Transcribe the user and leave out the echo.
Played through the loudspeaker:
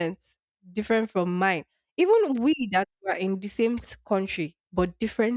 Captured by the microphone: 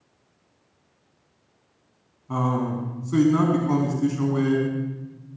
Um, so it now becomes a situation where

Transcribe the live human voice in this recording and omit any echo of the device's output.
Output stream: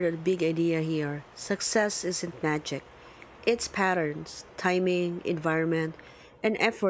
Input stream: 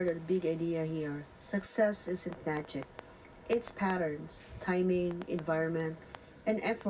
none

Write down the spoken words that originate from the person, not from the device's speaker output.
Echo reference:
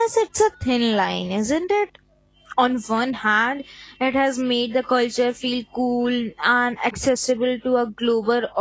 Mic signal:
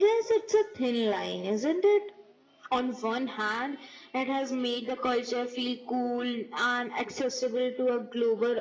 none

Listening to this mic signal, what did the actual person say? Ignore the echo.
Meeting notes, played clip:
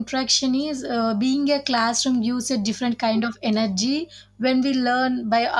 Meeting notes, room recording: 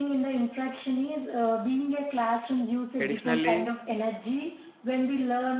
Additionally,

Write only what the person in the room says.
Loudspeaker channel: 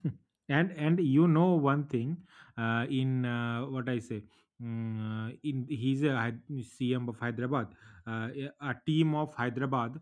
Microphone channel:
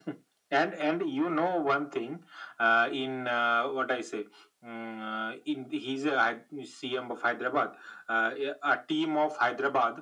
none

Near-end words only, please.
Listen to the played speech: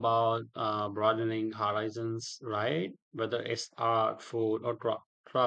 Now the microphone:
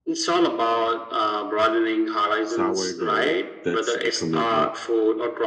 Sourdough. That's a commitment.

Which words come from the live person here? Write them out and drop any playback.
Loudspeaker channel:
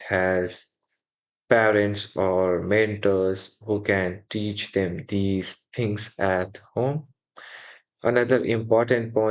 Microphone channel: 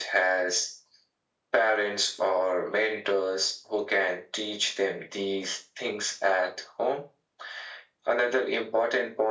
none

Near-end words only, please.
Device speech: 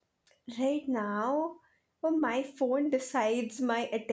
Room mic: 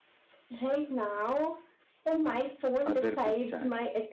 other group chat.

